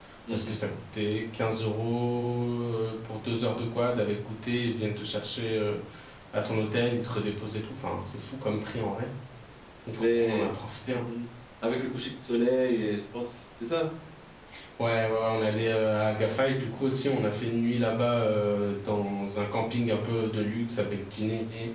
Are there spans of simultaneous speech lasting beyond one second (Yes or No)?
No